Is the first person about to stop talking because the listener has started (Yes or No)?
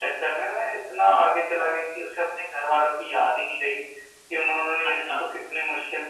No